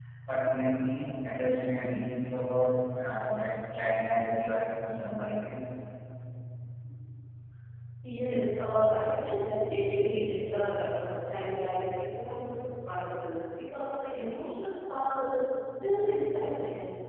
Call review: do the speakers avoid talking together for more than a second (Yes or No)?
Yes